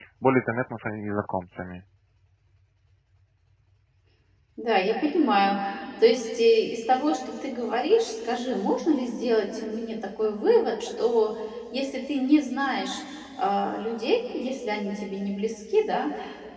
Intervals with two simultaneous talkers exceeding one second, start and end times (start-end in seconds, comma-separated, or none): none